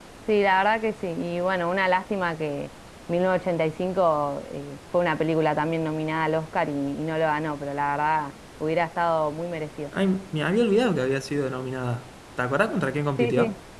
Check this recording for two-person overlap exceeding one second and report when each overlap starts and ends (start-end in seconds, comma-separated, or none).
none